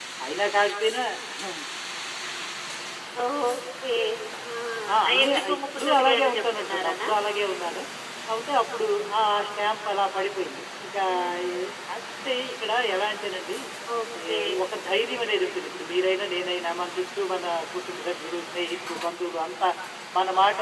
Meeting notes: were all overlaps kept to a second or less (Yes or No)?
No